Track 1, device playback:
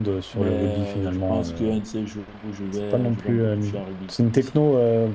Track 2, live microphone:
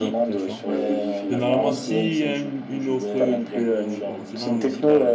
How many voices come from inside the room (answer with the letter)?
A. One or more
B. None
A